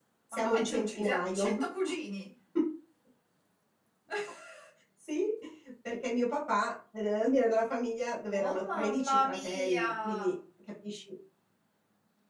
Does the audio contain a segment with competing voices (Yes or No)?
Yes